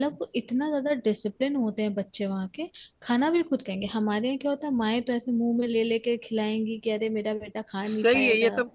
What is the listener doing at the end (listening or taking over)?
taking over